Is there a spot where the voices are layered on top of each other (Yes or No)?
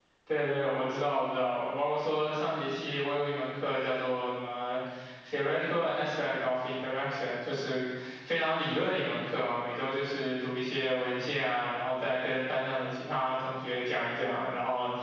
No